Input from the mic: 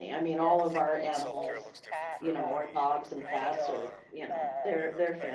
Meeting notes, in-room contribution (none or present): present